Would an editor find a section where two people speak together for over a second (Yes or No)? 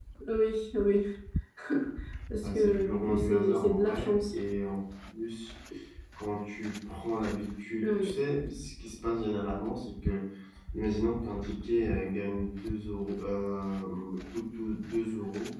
Yes